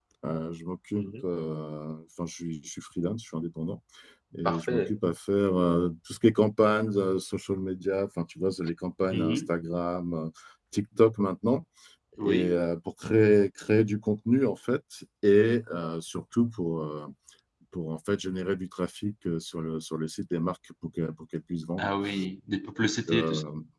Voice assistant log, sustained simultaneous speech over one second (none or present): none